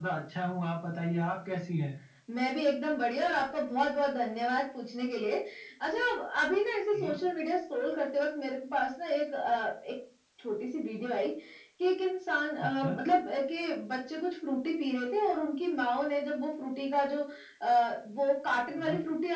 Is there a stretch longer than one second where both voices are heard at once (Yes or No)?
No